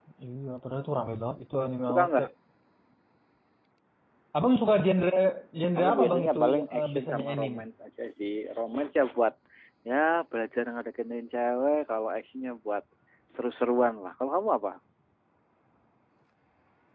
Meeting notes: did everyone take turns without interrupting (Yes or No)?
No